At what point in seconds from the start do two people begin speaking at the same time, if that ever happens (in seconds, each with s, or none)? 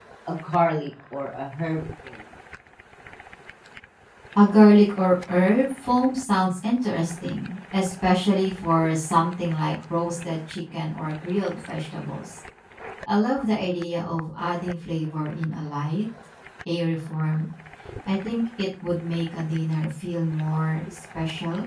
none